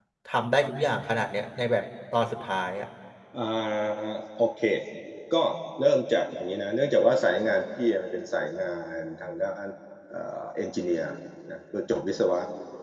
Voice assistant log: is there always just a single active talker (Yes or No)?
Yes